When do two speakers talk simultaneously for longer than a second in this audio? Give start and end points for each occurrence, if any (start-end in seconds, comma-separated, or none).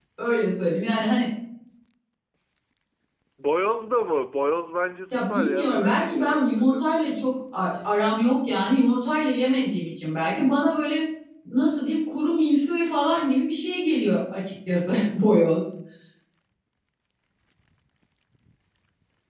5.1-6.9